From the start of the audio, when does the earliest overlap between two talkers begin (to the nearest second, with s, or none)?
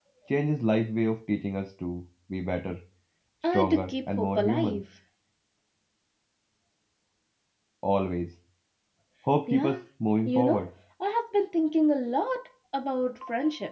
4 s